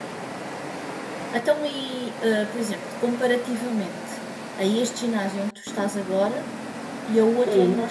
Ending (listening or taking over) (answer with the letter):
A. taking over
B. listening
B